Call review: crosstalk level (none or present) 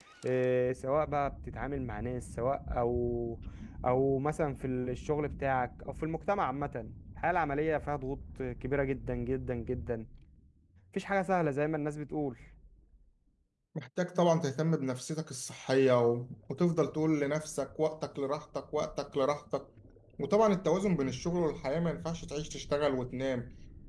none